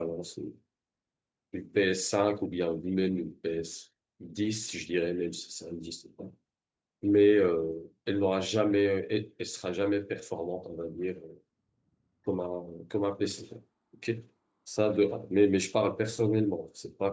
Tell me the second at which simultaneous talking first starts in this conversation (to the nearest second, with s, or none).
none